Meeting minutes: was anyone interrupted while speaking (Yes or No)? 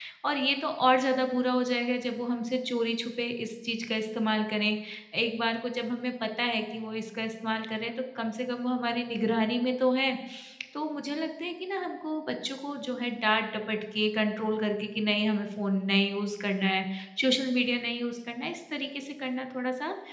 No